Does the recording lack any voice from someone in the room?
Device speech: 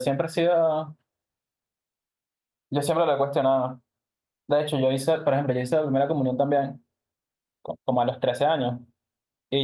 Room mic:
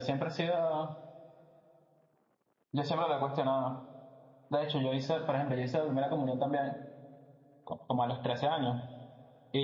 Yes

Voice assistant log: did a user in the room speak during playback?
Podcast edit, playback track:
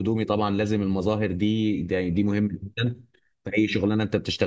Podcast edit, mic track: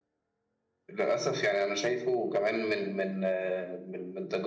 Yes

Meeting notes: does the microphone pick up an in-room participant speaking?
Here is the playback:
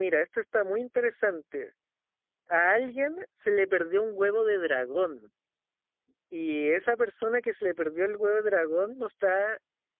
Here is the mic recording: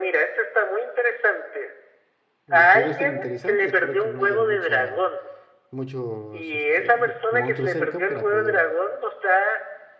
Yes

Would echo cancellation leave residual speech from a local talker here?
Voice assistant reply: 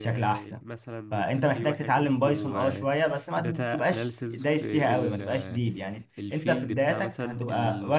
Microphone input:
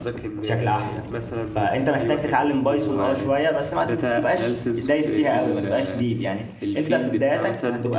No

